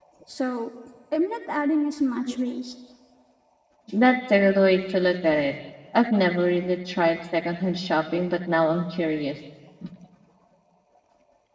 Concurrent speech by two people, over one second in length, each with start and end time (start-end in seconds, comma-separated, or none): none